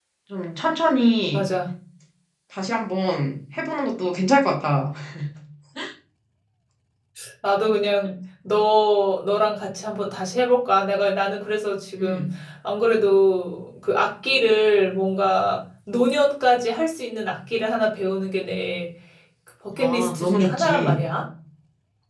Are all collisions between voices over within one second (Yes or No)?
No